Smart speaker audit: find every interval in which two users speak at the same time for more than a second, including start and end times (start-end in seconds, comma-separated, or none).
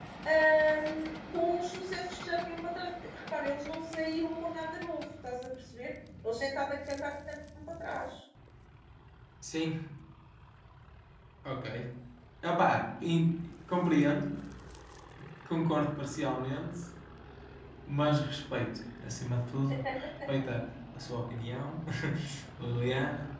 none